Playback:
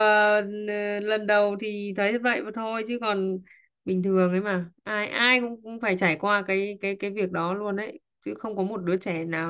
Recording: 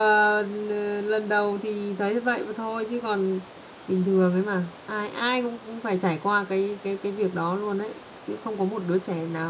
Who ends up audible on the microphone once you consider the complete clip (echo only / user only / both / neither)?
echo only